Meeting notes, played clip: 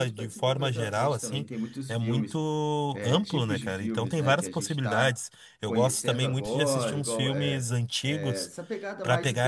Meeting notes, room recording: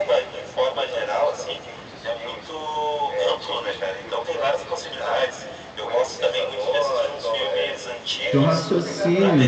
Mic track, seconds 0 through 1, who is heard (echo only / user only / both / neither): echo only